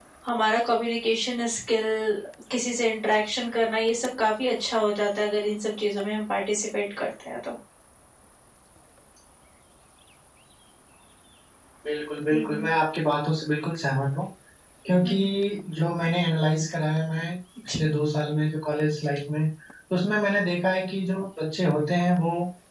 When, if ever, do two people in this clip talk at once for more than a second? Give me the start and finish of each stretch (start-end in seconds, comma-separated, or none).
none